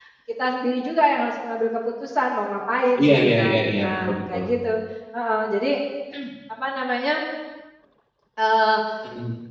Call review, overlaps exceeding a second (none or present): present